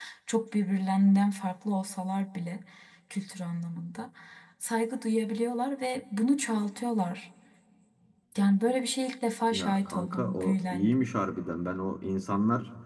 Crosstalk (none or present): present